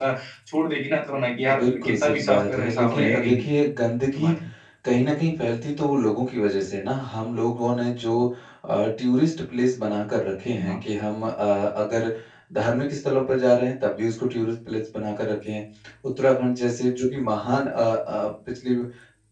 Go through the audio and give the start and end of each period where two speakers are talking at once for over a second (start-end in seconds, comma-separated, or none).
1.6-3.4